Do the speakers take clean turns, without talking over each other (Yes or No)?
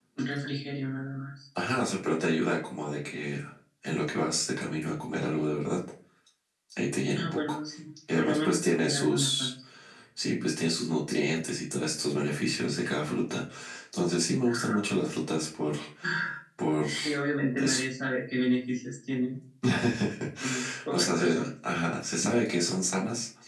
No